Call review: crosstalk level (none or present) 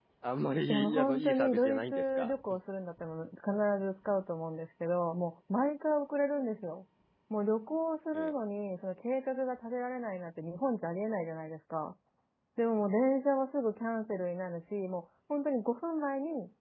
present